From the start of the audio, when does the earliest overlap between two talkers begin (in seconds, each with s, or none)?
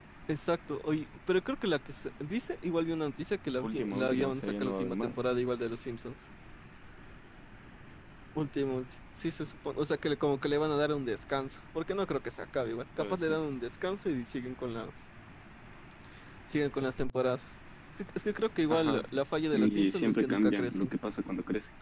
3.6 s